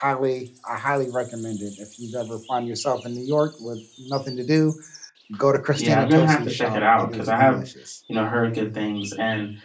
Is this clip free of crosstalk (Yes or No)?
No